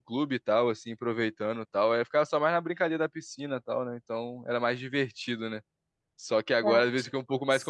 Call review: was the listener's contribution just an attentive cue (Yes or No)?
Yes